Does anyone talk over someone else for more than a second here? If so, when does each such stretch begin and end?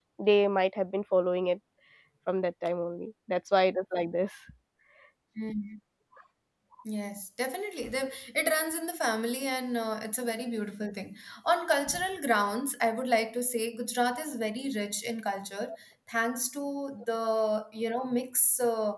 none

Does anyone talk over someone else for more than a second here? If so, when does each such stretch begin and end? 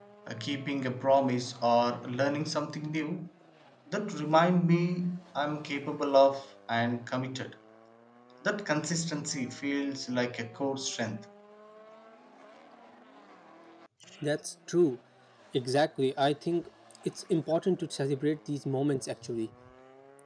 none

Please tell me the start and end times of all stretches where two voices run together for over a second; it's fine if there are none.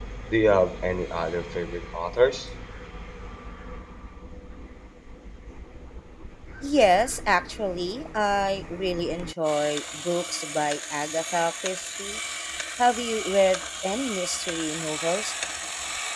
none

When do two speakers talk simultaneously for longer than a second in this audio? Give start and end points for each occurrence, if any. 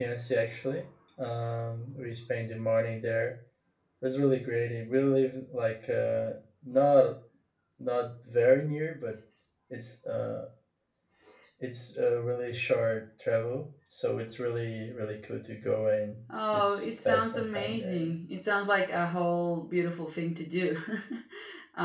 16.5-18.1

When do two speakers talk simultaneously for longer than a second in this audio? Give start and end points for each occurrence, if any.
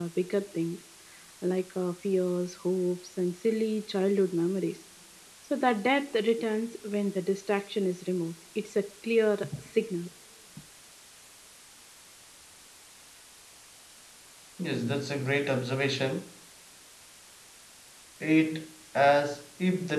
none

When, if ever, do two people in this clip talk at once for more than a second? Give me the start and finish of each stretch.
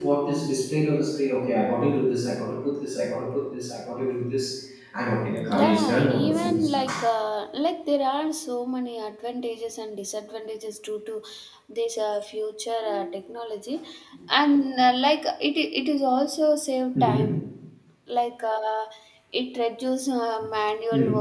5.5-6.8

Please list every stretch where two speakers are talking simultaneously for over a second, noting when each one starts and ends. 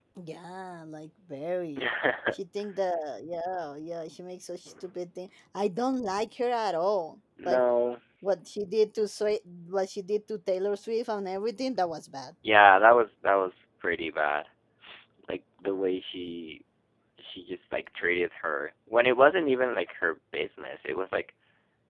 none

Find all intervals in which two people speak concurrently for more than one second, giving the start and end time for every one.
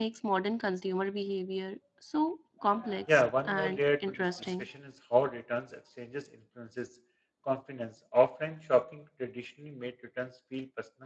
3.1-4.7

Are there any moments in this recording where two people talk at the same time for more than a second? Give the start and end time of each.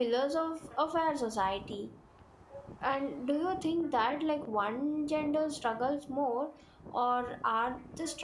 none

